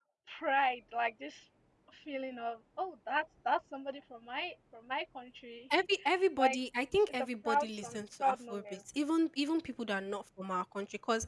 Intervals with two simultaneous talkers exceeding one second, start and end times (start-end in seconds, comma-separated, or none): 7.1-8.6